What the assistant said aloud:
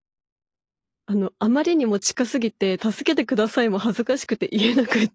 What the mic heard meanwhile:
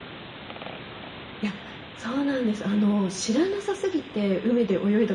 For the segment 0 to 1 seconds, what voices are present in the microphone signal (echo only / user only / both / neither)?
neither